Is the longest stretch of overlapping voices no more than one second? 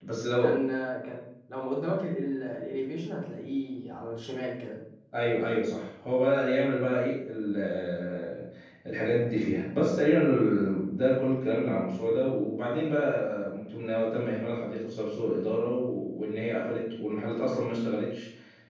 Yes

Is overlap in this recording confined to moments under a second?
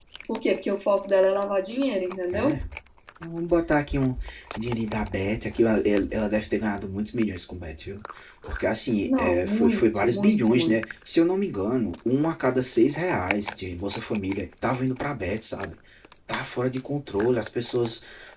No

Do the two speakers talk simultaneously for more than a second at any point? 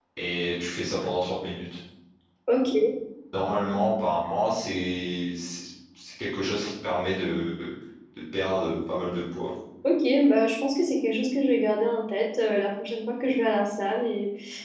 No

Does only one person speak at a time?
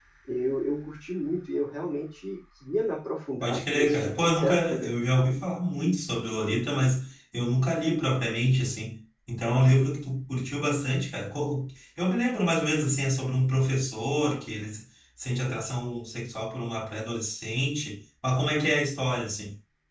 No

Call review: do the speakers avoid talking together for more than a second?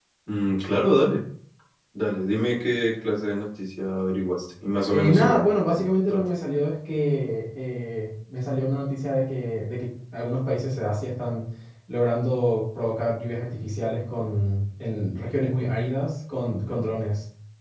No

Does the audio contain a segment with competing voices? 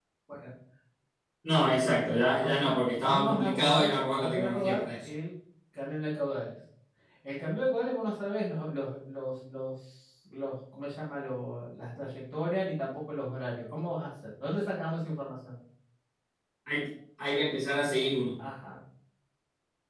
Yes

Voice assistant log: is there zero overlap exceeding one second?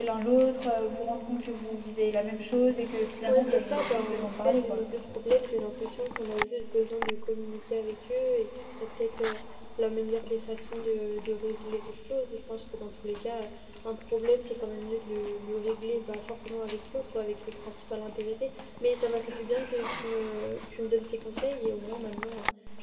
No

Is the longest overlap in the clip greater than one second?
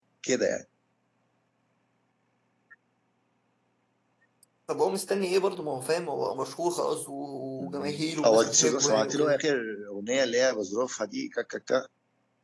Yes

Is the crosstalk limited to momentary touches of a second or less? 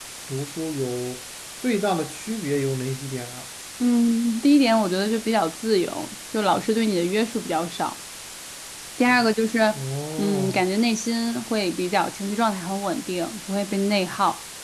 Yes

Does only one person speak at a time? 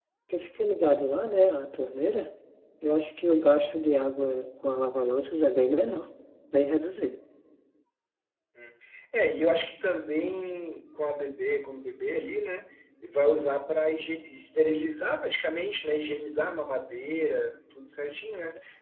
Yes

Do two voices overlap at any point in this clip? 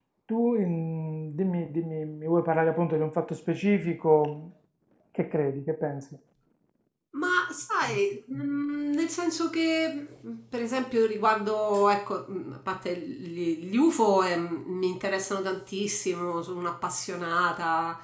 No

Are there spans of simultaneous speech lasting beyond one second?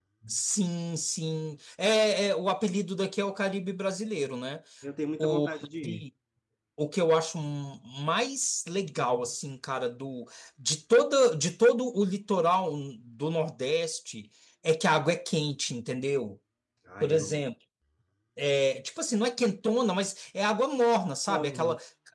No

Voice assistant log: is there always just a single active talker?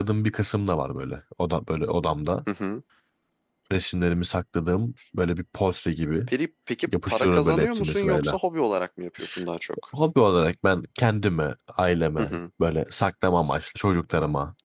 No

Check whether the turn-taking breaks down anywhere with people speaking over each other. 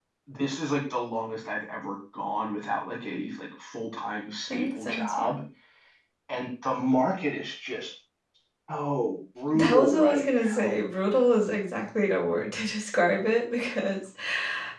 Yes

